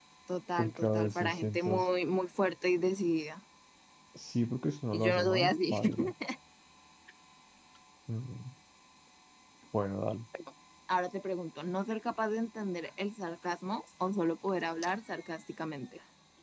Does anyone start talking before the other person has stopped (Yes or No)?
Yes